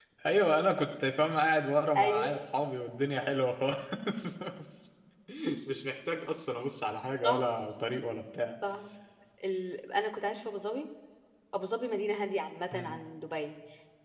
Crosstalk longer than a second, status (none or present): none